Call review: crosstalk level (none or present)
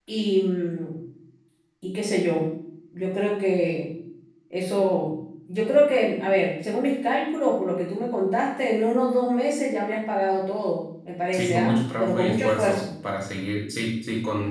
present